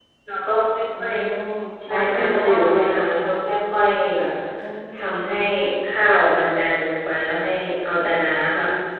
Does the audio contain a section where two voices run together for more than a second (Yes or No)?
Yes